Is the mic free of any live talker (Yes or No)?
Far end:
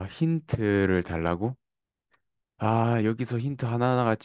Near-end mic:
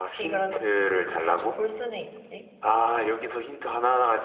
No